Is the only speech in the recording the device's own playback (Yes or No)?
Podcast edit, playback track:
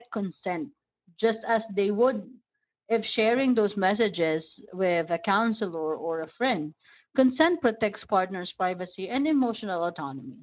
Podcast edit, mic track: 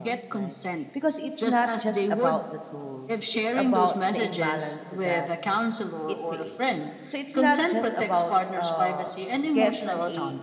No